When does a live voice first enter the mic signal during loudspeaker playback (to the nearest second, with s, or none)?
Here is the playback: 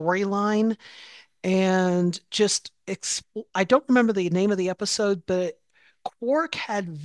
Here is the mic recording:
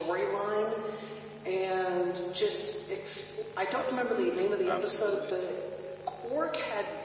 4 s